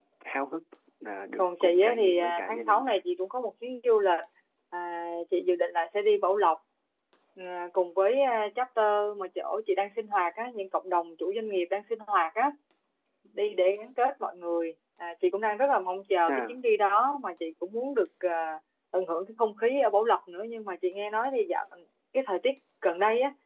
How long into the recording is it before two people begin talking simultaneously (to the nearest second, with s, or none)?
1 s